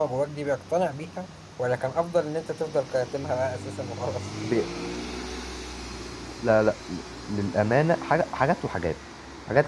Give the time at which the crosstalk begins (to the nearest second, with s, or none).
none